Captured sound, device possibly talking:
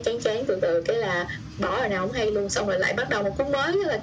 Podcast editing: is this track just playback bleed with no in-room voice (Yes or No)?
Yes